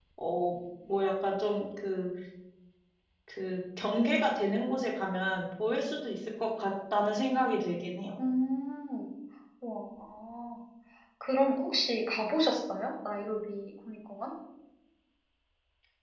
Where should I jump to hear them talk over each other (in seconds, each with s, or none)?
none